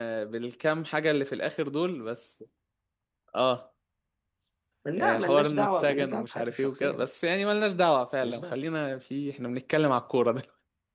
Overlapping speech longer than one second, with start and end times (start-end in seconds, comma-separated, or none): 5.0-7.1